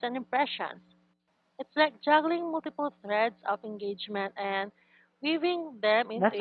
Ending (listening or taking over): taking over